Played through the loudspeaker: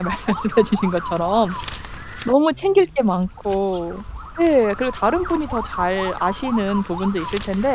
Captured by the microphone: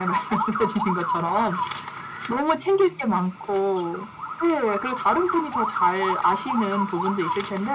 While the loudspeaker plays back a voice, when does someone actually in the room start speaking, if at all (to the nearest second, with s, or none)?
none